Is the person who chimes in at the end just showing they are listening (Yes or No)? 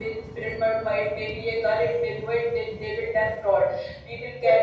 Yes